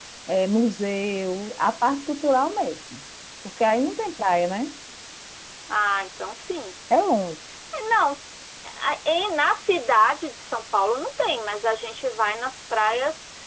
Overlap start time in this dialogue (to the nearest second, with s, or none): none